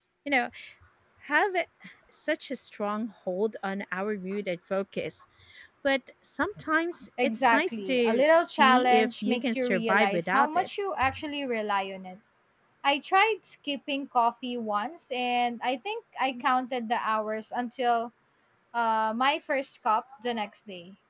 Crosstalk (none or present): present